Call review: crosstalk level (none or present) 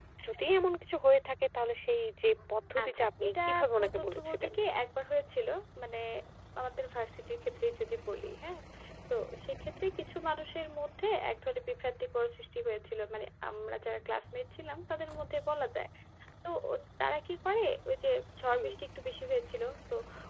present